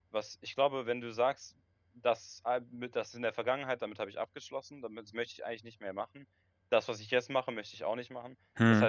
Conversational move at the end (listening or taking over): listening